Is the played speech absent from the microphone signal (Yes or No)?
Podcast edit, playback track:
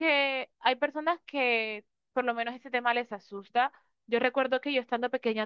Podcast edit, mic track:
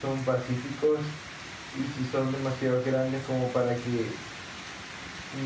Yes